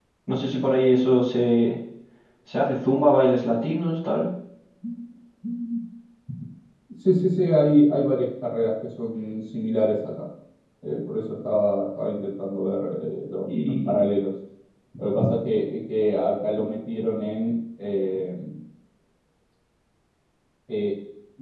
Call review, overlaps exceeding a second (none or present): none